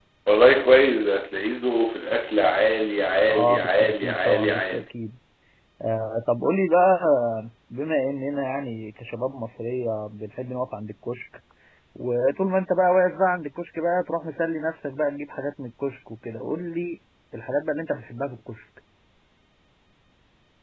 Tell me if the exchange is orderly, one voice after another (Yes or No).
No